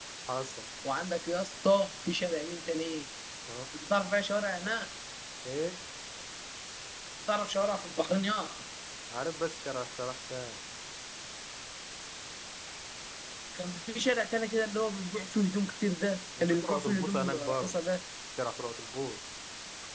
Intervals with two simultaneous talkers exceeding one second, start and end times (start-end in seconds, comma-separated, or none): 16.4-17.7